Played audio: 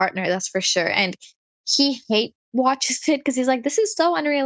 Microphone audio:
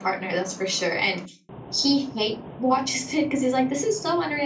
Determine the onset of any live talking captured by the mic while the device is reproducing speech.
none

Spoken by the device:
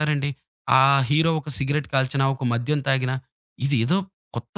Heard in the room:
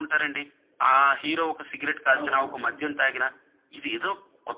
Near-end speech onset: 2.1 s

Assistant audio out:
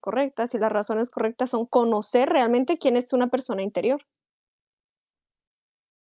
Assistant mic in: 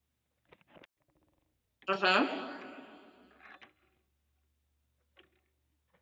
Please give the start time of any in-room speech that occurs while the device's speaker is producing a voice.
1.9 s

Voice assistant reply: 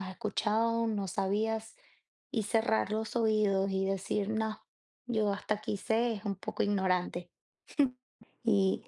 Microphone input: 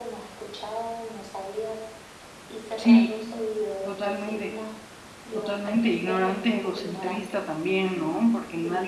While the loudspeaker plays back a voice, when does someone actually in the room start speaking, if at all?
2.8 s

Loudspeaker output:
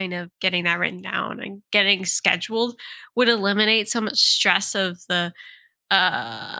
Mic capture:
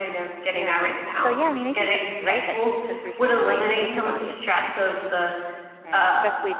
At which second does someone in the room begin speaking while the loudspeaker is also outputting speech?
0.5 s

